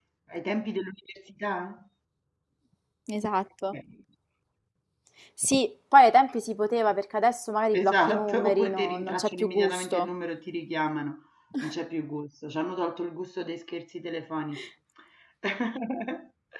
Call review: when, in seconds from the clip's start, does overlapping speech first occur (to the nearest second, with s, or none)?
8 s